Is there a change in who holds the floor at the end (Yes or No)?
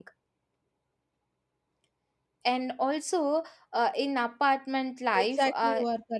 Yes